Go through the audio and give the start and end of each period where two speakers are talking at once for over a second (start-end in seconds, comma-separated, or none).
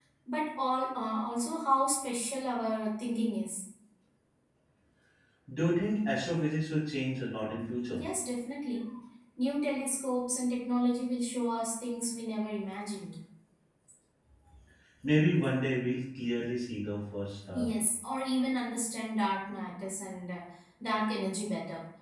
none